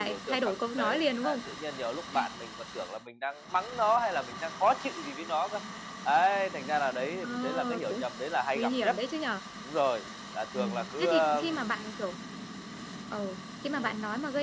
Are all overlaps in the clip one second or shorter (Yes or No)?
No